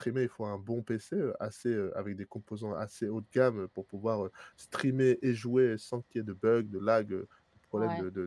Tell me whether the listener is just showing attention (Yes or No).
No